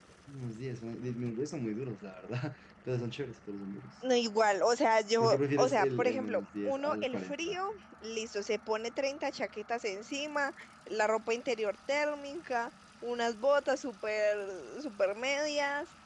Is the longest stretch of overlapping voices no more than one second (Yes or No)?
No